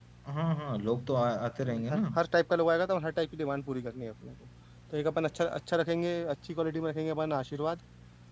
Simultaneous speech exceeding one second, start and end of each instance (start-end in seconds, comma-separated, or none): none